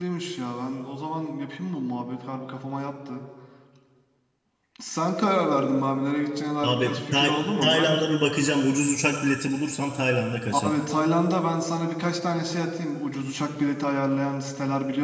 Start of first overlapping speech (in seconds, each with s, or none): 6.6 s